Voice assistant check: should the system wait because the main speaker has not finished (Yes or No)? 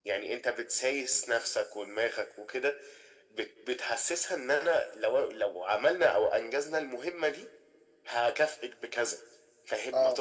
Yes